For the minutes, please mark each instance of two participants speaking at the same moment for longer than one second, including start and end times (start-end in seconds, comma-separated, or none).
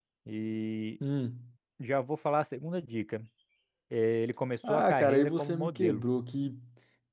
4.7-6.0